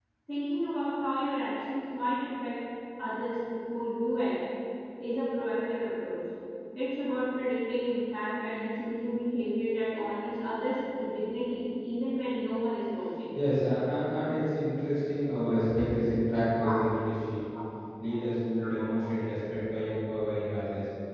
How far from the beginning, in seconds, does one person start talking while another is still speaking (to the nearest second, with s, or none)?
none